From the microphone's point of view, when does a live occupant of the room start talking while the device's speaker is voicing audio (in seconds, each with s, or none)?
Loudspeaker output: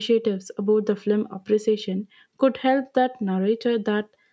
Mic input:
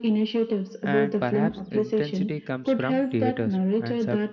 0.8 s